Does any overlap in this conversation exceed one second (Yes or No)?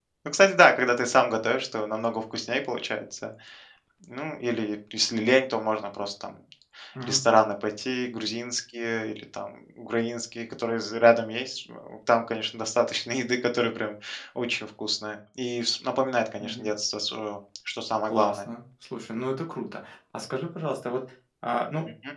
No